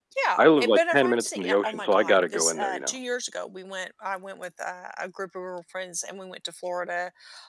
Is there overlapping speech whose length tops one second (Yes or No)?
Yes